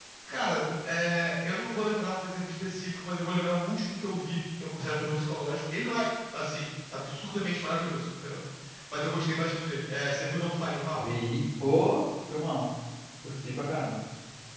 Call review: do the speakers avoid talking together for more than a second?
Yes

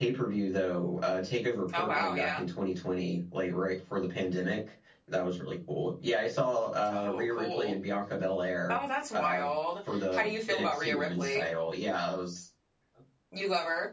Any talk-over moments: Yes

